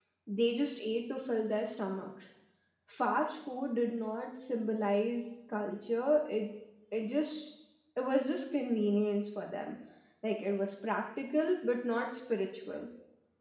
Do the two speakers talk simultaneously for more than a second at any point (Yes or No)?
No